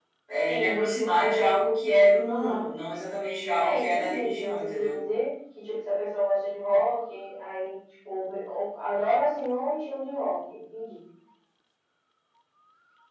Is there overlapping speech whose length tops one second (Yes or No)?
Yes